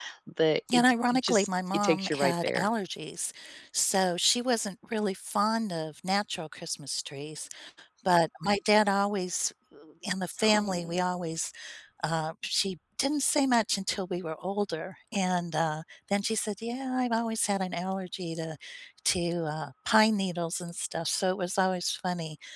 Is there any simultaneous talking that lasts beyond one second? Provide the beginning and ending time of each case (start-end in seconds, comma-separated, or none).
0.7-2.7